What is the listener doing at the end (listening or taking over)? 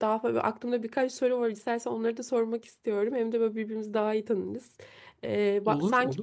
listening